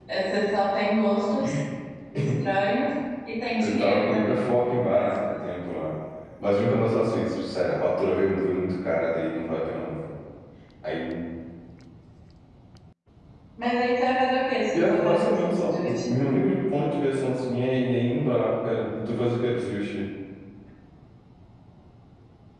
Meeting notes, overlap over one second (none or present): present